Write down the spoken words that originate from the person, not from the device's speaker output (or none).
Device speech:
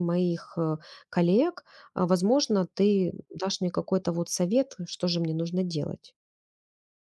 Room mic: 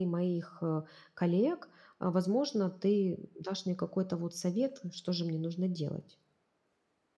none